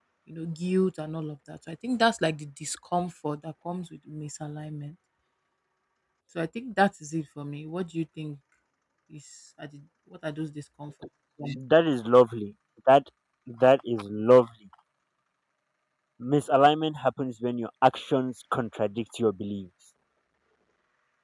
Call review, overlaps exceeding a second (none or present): none